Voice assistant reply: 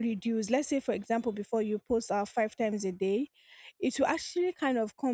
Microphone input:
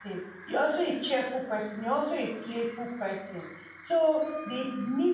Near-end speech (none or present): present